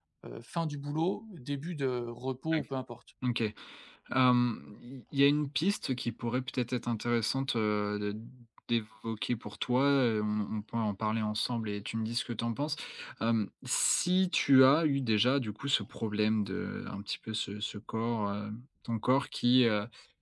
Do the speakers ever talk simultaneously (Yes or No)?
No